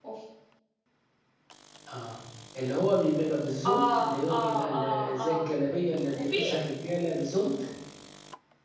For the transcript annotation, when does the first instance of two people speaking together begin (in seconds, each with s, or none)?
3.7 s